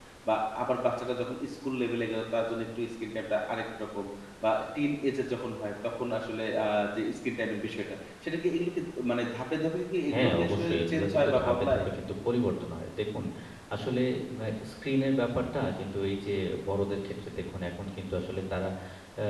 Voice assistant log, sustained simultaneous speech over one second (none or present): present